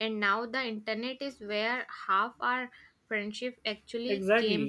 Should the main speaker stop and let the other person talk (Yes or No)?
Yes